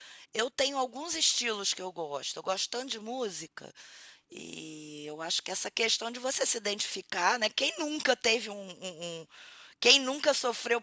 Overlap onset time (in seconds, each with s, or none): none